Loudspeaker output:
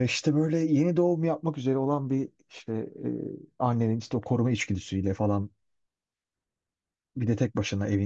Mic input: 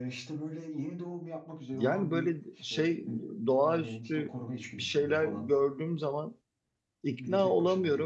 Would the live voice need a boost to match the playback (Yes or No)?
No